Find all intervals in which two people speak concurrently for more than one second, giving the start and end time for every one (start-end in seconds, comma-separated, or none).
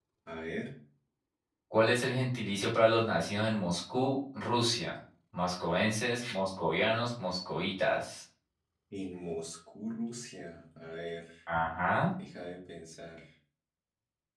none